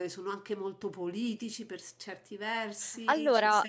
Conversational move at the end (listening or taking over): listening